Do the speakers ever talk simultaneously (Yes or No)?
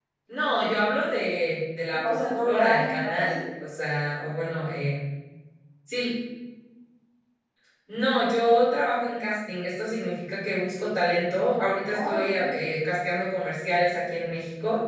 Yes